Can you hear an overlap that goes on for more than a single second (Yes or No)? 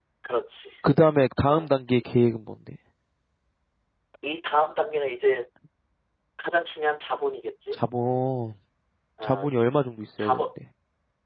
No